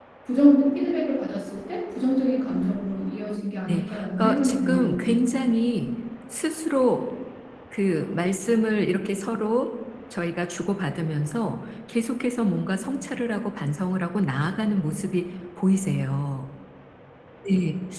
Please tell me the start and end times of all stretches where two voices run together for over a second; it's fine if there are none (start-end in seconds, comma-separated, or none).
3.7-5.1